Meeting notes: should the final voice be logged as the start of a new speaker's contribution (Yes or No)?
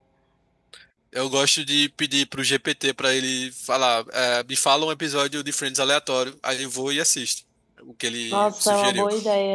Yes